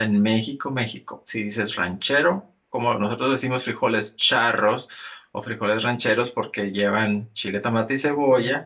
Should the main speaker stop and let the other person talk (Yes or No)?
No